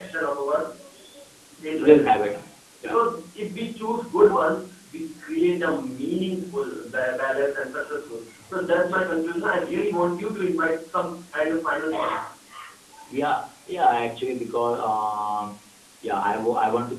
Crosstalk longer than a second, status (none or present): none